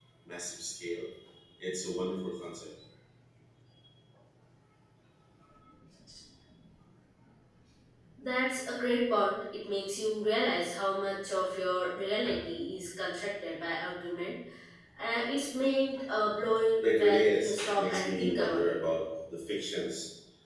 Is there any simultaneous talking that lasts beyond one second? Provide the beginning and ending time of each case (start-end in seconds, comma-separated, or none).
16.8-18.6